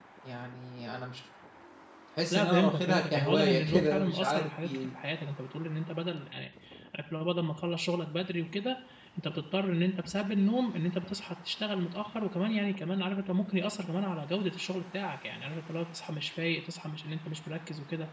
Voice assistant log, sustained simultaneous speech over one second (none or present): present